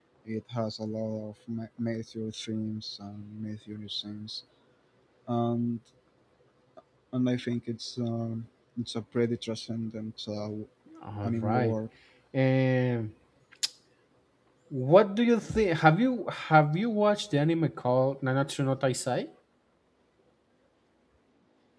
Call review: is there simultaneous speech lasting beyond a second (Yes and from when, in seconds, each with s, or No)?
No